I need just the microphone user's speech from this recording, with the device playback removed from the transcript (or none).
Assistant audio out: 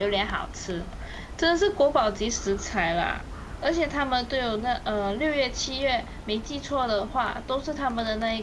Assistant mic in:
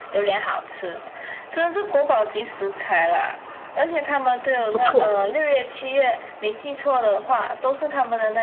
不错。